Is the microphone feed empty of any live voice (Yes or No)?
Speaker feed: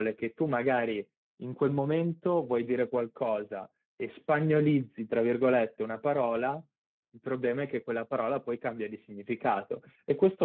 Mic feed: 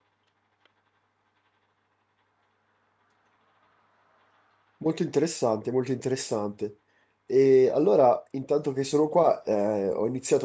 No